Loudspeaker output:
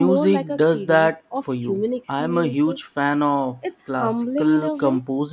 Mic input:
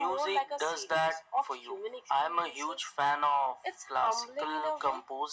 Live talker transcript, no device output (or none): none